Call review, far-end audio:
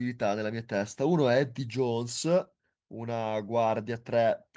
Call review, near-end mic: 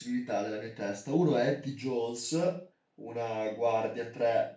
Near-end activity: none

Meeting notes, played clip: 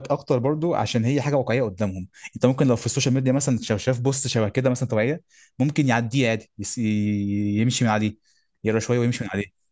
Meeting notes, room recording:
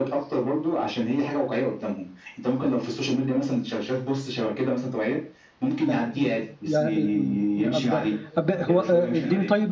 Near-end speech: present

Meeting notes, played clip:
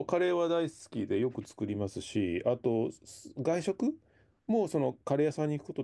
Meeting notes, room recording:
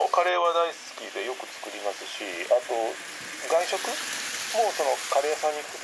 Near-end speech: none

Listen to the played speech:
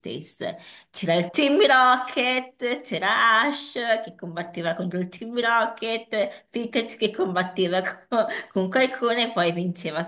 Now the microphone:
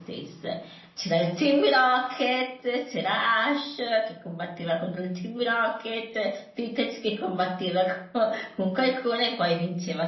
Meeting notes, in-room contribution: none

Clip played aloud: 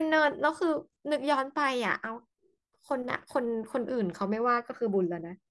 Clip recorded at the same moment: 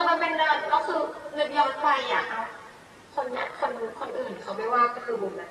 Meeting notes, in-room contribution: none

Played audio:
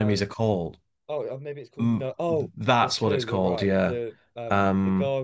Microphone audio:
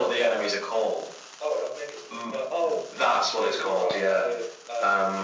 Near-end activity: none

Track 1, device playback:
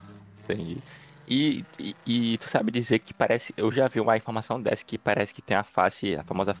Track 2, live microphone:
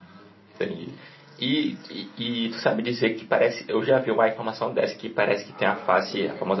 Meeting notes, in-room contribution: present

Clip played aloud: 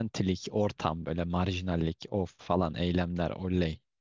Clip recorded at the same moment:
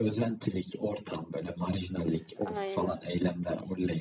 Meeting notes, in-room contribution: present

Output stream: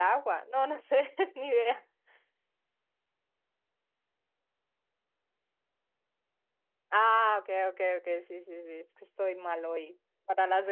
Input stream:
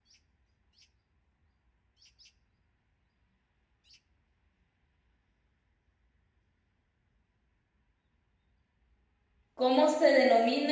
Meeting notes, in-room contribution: present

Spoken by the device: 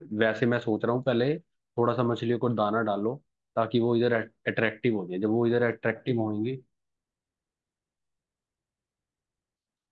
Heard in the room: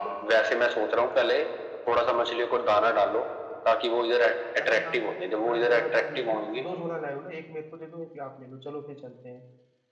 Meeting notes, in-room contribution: present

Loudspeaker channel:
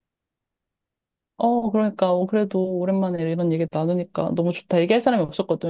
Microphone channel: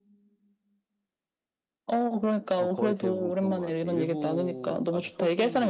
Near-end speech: present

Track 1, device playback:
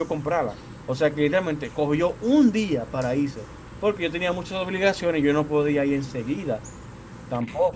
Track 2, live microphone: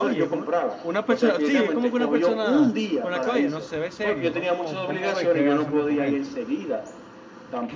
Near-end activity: present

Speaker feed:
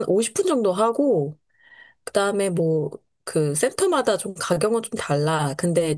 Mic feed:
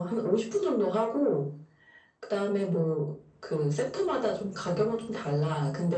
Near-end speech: none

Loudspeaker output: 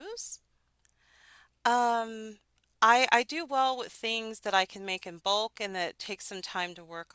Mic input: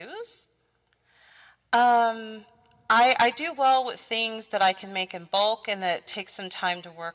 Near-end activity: none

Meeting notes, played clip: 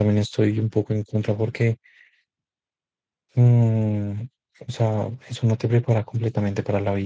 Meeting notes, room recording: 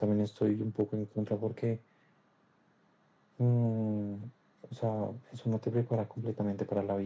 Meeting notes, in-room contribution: none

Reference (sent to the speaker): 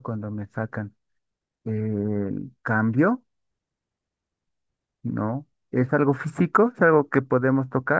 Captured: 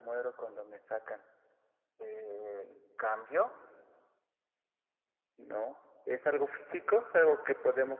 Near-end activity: none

